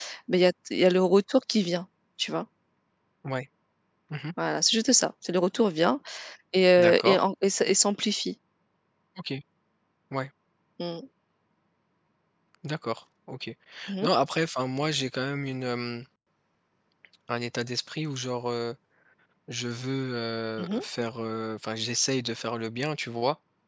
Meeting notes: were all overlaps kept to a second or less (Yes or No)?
Yes